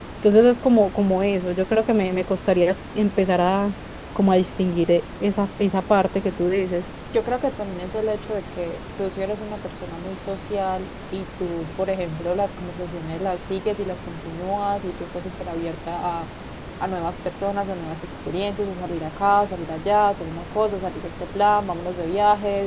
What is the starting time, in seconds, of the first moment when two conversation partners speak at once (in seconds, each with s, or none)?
none